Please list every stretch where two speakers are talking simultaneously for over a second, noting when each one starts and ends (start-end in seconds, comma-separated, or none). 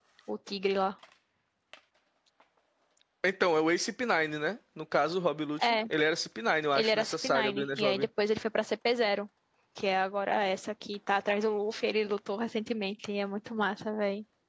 6.7-8.1